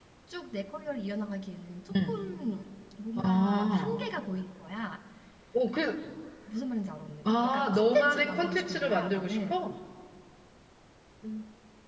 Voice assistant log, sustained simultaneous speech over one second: present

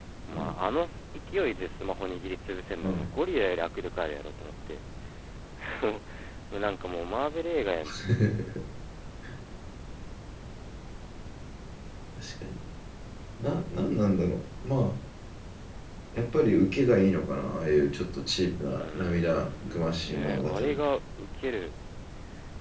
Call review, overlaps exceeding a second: present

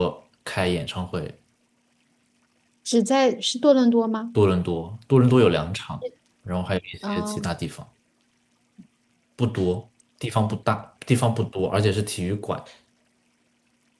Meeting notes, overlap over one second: none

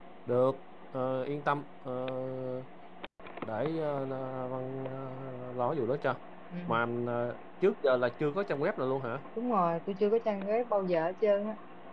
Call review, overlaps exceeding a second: none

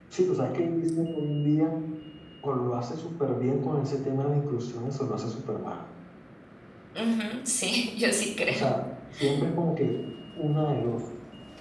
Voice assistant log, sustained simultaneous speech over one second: none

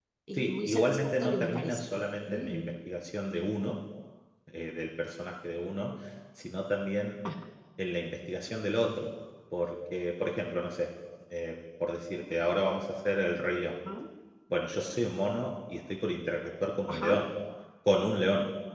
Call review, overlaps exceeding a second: present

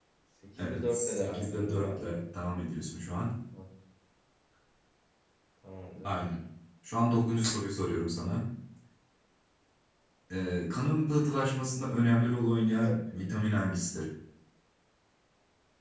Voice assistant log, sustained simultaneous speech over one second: present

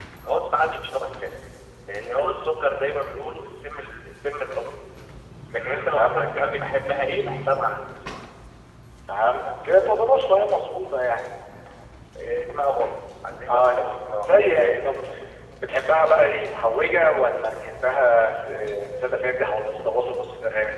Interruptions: present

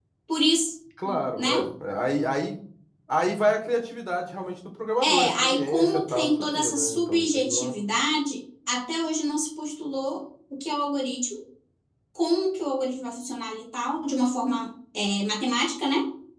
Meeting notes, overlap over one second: present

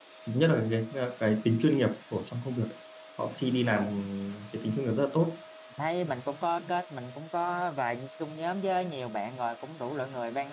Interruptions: none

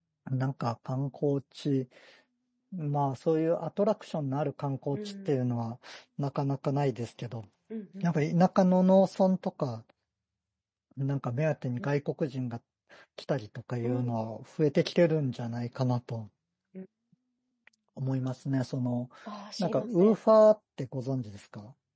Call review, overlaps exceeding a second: none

